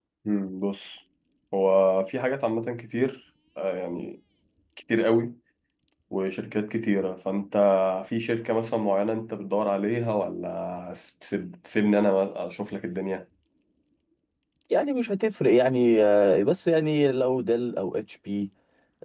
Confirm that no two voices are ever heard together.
Yes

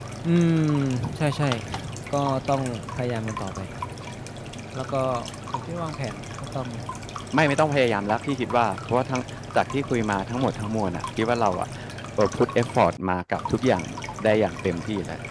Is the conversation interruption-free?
Yes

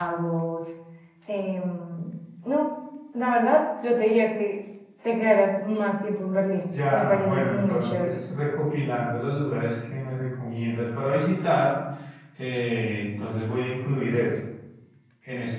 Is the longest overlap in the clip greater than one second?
Yes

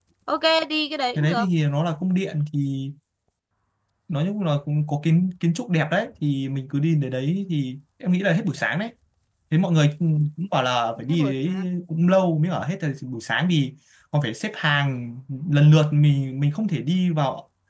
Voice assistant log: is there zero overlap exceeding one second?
Yes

